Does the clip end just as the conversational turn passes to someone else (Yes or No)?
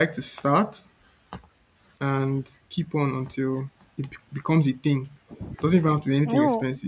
No